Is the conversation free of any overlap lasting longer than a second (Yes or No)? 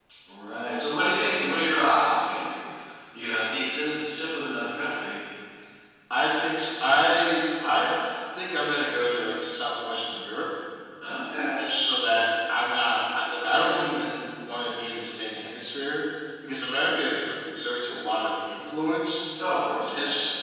Yes